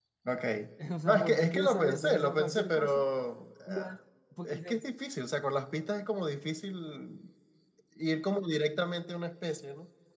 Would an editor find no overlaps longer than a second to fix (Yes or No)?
No